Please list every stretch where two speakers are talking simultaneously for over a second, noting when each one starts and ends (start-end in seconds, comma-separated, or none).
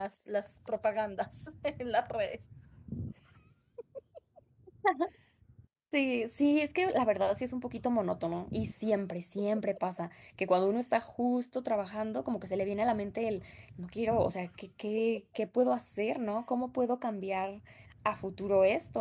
none